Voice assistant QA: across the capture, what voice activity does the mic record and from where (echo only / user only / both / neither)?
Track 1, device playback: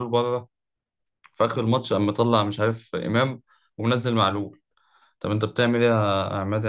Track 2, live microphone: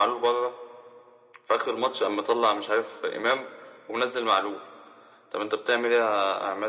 echo only